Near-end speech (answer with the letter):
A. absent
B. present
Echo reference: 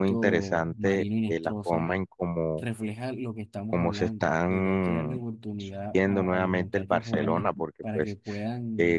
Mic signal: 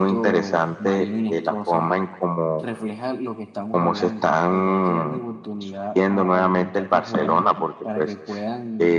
A